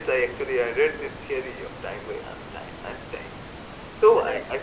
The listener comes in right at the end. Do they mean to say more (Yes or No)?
No